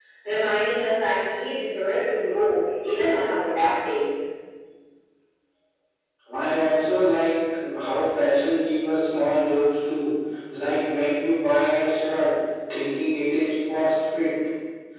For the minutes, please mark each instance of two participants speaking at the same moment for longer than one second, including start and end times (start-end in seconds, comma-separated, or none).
none